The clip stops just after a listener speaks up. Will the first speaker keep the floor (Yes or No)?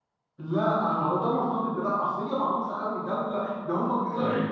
Yes